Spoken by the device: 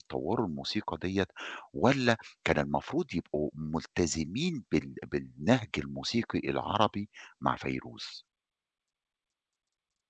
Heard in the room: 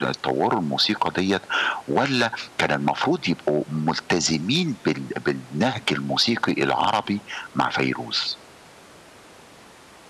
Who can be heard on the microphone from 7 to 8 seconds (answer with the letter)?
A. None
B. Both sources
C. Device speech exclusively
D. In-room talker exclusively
C